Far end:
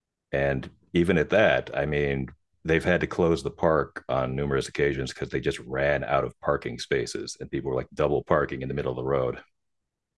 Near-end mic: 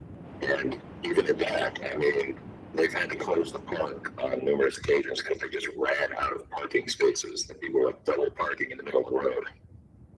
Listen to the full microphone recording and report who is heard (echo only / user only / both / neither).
echo only